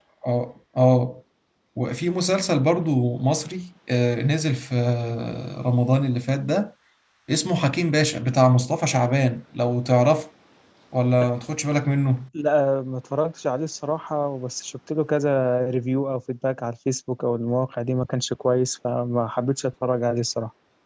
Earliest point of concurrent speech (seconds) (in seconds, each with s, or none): none